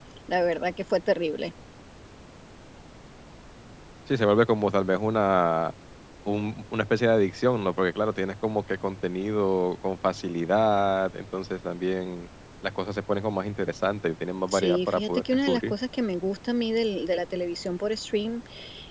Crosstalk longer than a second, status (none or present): present